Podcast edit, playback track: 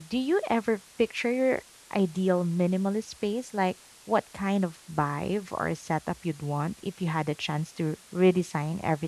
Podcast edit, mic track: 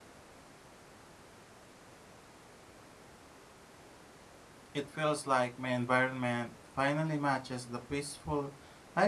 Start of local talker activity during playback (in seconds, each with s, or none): 4.7 s